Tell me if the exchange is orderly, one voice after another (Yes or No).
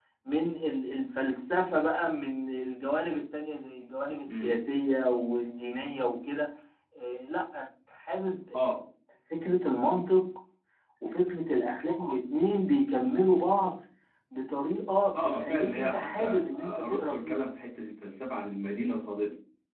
No